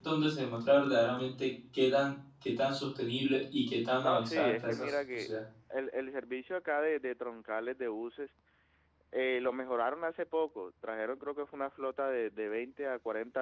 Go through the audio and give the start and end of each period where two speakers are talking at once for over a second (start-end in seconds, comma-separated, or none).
4.0-5.3